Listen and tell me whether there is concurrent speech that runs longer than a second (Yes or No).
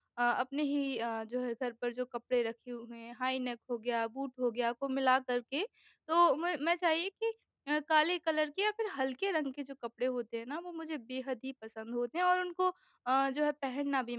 No